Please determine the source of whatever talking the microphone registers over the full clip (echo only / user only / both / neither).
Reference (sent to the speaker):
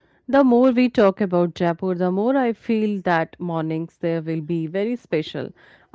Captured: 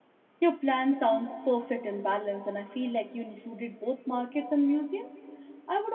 user only